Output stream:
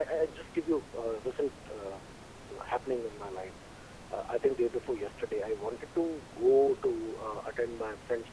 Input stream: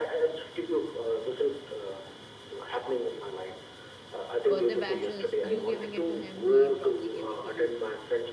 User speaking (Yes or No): Yes